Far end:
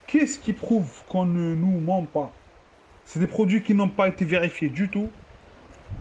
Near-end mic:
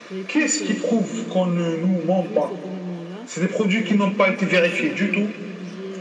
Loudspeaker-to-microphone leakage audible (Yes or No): Yes